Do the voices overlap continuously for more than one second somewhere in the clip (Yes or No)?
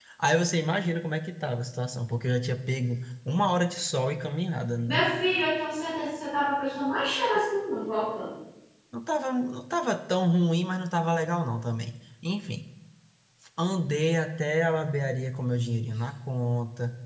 No